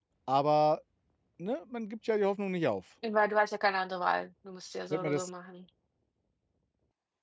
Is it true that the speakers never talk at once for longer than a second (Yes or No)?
Yes